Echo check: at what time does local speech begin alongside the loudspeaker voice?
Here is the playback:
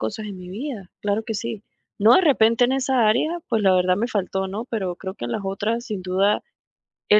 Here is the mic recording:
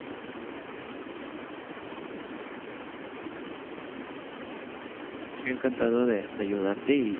5.2 s

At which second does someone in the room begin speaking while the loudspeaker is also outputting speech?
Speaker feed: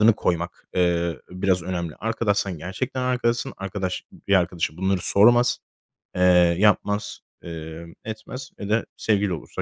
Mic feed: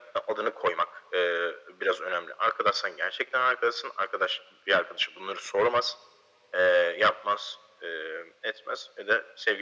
none

